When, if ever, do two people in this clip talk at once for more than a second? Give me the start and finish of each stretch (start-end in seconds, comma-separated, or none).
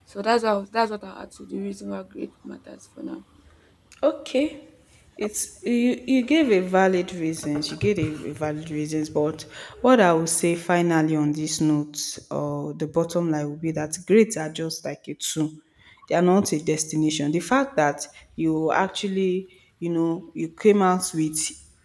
none